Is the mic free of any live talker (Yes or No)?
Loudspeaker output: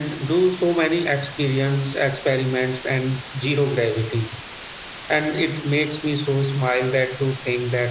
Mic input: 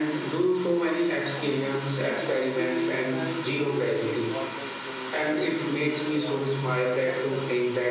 No